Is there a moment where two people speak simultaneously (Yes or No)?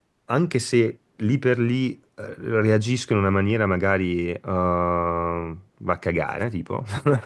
No